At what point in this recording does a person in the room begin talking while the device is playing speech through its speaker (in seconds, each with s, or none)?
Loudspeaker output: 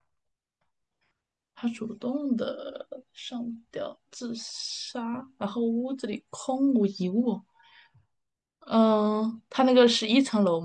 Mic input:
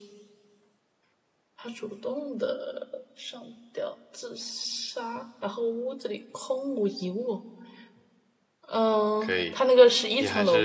9.2 s